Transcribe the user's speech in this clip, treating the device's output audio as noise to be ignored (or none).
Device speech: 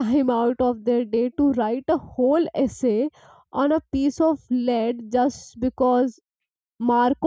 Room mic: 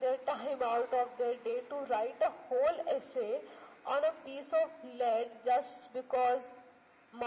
none